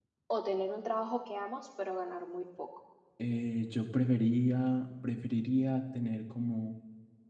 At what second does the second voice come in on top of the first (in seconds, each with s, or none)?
none